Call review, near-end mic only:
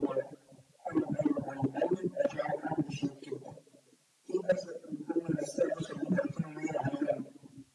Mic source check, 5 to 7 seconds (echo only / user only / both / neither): echo only